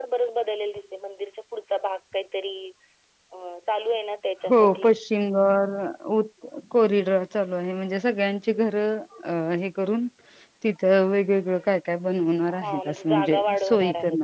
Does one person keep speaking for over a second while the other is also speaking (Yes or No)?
Yes